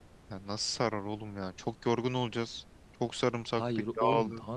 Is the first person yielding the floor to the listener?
Yes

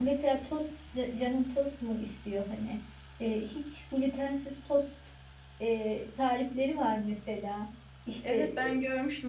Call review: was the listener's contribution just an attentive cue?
No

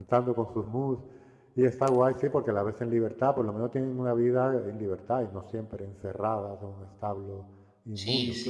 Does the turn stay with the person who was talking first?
No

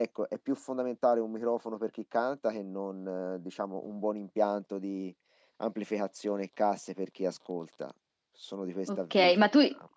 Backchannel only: No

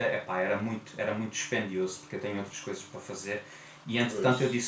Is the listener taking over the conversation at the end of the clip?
No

